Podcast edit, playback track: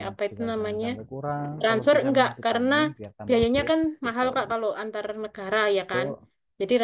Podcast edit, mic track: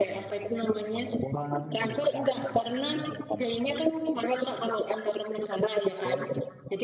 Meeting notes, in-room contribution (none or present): none